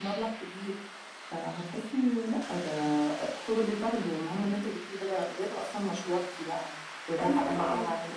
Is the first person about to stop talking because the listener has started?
Yes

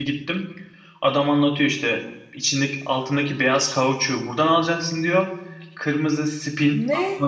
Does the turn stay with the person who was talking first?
Yes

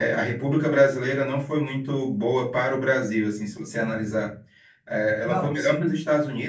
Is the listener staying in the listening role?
Yes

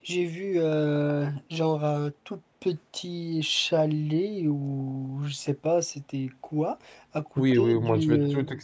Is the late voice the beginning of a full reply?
Yes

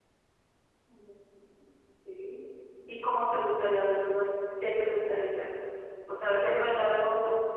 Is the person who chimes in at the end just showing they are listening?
Yes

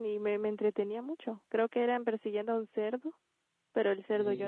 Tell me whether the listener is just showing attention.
Yes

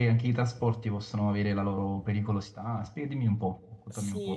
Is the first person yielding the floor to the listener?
Yes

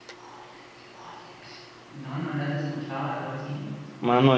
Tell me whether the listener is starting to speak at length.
Yes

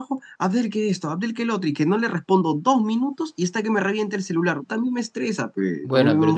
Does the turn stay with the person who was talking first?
No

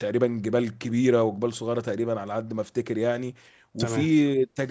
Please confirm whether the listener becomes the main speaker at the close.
No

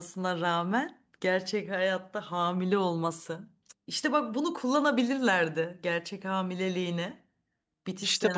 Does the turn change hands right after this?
Yes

